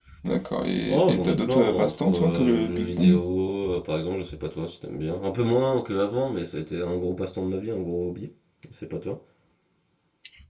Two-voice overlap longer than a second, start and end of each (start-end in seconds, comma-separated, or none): 0.9-3.2